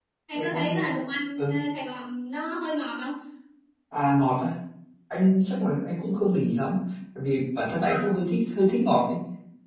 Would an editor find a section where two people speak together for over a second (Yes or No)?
No